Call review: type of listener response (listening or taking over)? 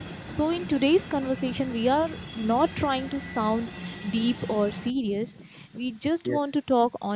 listening